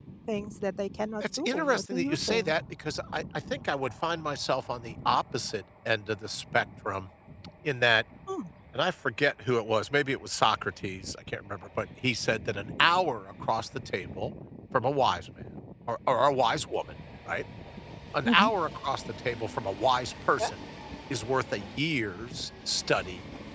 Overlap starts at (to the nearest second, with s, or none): 1 s